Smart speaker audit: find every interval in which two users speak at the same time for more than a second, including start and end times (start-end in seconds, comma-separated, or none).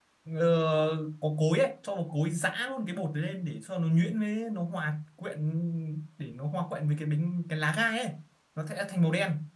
none